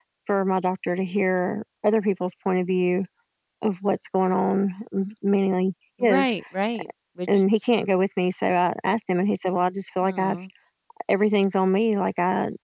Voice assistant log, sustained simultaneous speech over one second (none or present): none